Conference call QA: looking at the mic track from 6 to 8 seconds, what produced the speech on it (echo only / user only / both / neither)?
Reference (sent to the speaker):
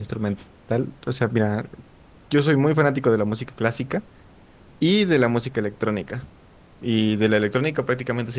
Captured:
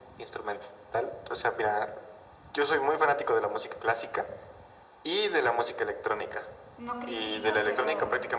both